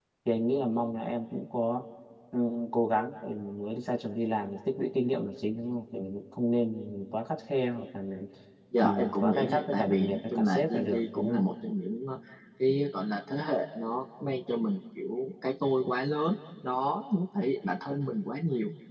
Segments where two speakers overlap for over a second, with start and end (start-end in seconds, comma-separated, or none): 8.8-11.4